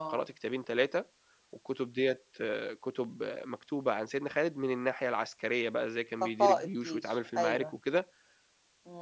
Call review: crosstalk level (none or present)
present